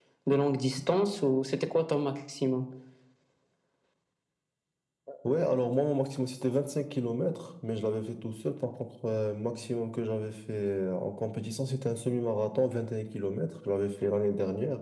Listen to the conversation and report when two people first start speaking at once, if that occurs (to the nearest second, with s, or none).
none